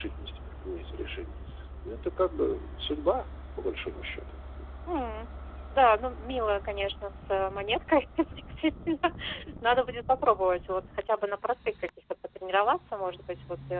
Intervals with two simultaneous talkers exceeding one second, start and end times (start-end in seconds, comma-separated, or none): none